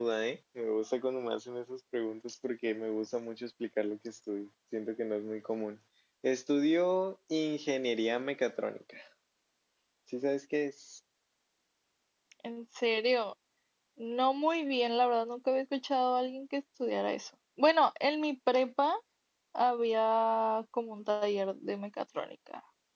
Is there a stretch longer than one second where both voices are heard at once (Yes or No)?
No